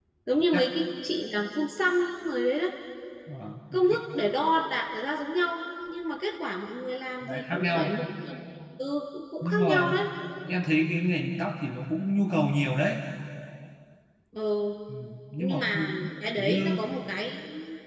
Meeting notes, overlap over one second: present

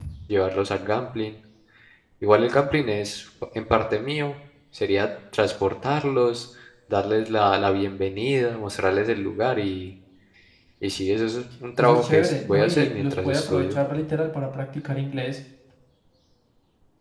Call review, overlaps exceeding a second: present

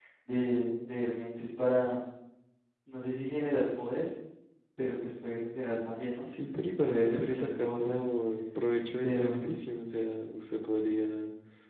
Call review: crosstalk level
present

